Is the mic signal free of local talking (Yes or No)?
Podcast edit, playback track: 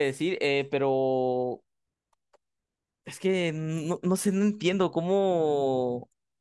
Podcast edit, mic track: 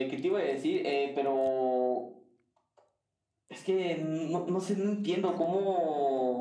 Yes